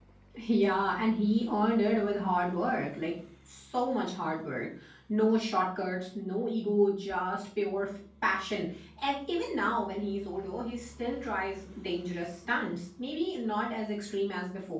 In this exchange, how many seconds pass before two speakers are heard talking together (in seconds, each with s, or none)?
none